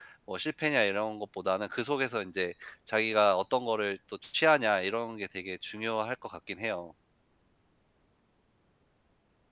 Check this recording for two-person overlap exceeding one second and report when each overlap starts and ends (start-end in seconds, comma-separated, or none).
none